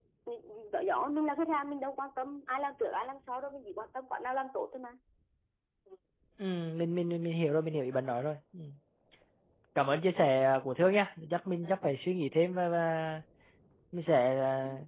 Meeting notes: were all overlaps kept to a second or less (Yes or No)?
Yes